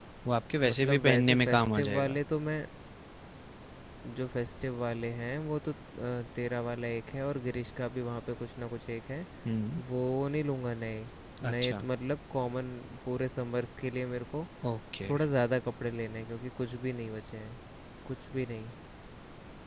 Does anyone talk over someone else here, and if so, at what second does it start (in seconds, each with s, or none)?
0.7 s